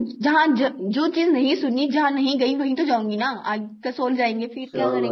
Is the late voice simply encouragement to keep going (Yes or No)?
No